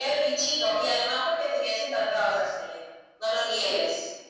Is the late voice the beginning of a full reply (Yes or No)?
Yes